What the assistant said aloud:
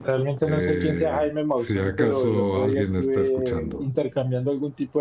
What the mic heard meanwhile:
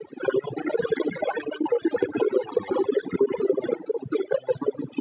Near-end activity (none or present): none